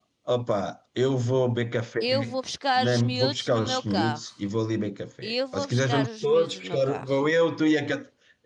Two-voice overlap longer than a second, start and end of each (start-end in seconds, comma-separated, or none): 2.8-4.2, 5.2-7.2